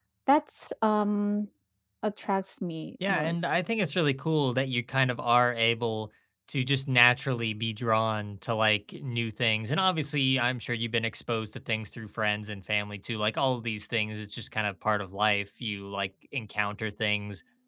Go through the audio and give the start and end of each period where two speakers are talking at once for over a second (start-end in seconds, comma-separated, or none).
none